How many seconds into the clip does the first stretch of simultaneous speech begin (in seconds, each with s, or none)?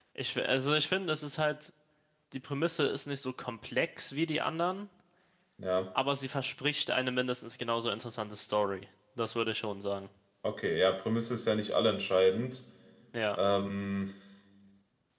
none